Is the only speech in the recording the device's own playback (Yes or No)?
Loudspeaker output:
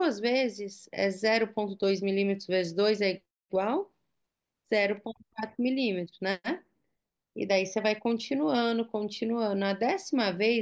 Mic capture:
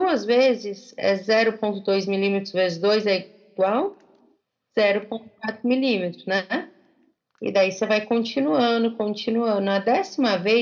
Yes